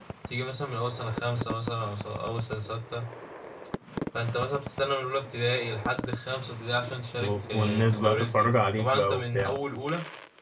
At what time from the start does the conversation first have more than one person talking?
7 s

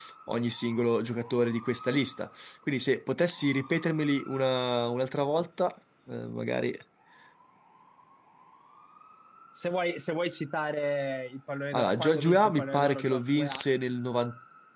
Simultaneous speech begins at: 12 s

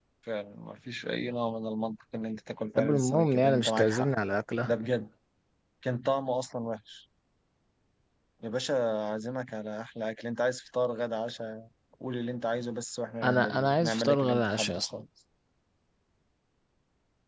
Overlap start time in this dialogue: 3 s

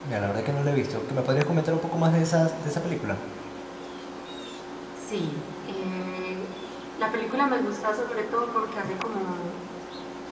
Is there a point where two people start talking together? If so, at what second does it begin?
none

